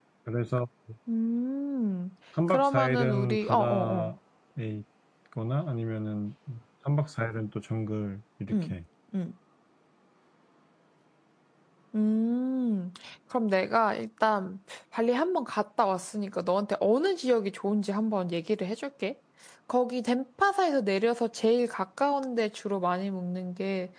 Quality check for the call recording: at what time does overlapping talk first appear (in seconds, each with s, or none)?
2.5 s